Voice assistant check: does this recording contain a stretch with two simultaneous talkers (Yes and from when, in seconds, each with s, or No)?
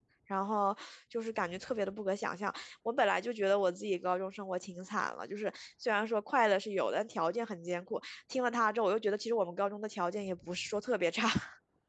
No